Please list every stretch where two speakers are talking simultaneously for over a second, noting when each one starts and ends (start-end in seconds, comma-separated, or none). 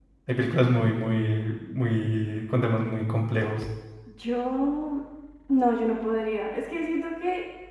none